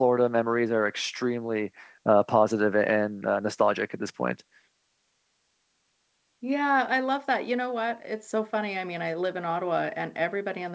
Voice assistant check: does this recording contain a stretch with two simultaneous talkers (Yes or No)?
No